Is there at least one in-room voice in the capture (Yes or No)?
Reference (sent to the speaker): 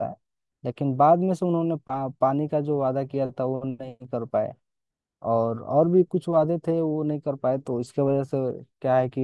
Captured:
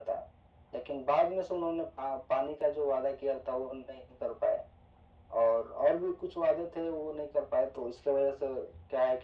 No